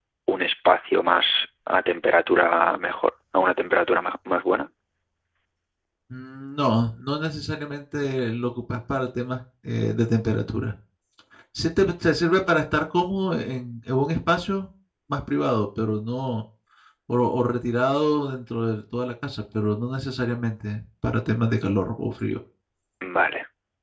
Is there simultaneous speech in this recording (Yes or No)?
No